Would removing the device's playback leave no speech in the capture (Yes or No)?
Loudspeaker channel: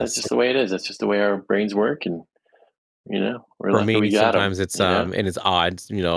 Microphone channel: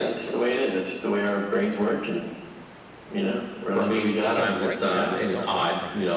No